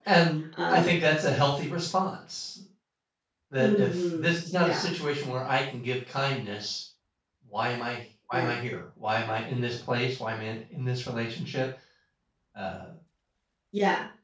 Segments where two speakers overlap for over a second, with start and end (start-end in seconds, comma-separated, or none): 3.6-4.9